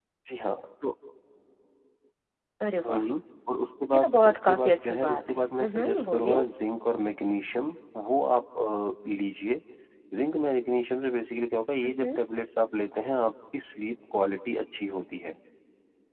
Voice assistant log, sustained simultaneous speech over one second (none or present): present